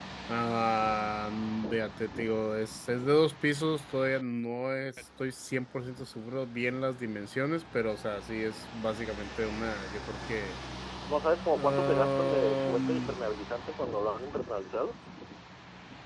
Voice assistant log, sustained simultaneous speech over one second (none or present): present